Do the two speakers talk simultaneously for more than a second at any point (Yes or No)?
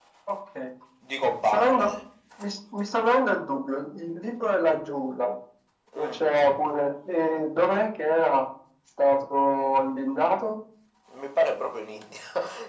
No